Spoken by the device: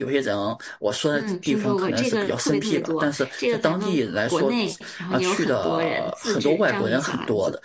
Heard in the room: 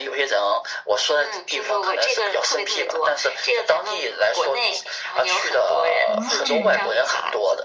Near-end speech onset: 5.9 s

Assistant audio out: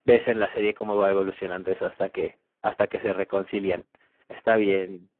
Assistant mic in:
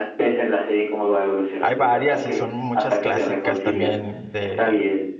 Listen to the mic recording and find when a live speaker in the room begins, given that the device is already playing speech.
1.6 s

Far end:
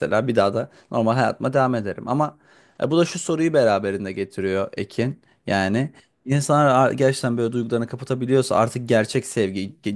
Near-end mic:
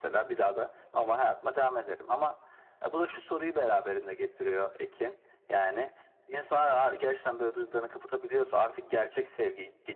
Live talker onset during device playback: none

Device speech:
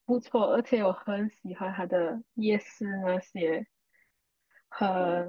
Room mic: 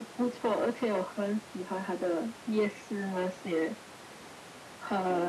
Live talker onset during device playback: none

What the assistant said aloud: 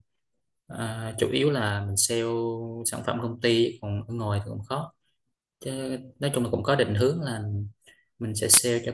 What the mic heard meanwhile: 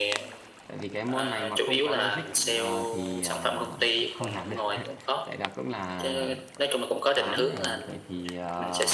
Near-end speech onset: 0.6 s

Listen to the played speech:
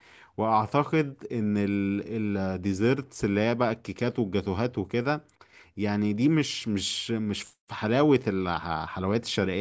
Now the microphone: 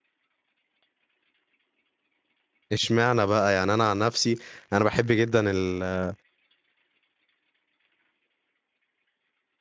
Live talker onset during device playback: 2.7 s

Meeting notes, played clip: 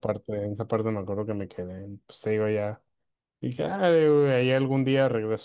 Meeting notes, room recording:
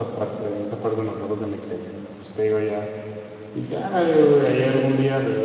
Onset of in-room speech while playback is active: none

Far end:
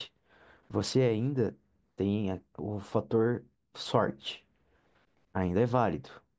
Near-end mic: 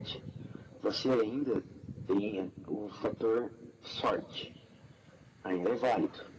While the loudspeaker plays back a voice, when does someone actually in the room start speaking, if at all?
none

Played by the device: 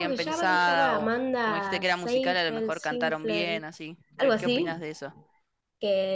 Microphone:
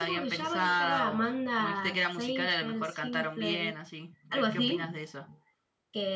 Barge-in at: none

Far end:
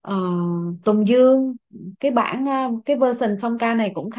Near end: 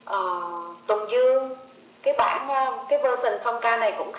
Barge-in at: none

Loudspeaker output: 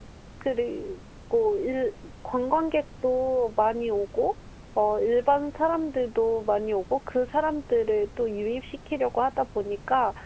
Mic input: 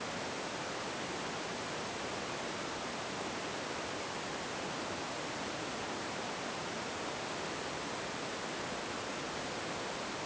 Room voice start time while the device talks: none

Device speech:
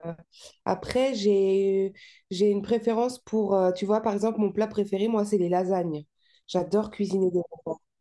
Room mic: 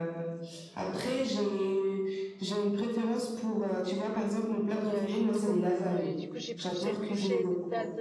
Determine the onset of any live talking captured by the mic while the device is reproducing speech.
4.7 s

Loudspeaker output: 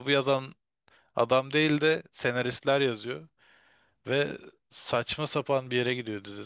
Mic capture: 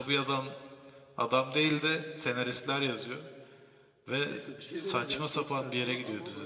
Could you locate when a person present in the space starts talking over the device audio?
4.3 s

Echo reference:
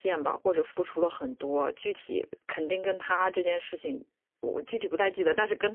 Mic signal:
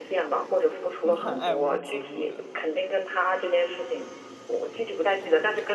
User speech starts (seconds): 1.0 s

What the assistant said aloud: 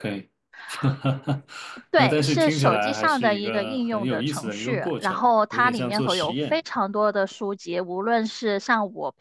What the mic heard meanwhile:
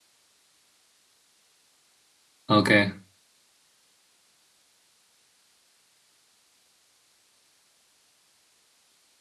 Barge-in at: 2.5 s

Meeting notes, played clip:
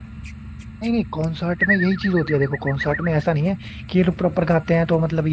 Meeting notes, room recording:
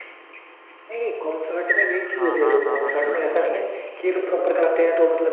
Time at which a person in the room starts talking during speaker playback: 2.2 s

